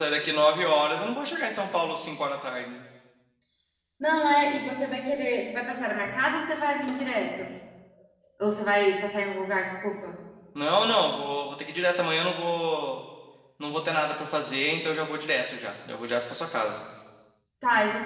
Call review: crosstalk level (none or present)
none